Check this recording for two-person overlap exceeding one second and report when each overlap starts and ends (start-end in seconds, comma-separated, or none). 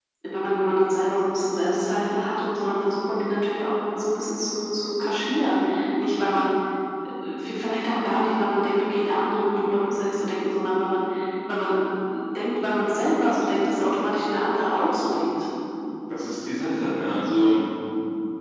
none